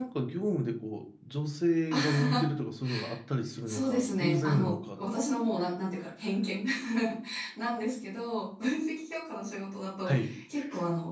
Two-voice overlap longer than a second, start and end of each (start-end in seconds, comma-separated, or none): 3.7-5.0